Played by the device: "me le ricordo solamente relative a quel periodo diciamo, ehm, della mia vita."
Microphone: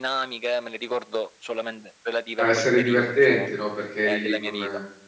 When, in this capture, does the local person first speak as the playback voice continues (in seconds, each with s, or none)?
2.3 s